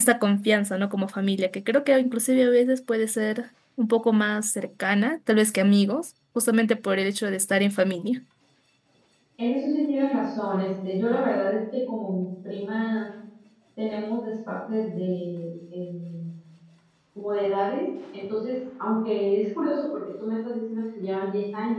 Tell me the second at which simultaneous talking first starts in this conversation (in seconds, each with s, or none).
none